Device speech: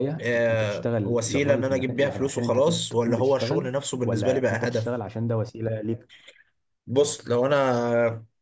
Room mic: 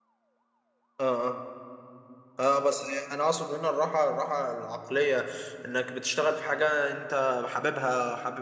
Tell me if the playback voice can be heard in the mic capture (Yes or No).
No